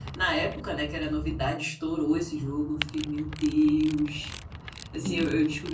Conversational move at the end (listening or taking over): listening